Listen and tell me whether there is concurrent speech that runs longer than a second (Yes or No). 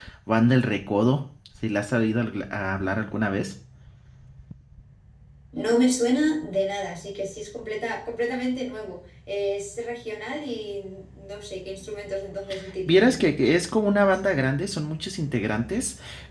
No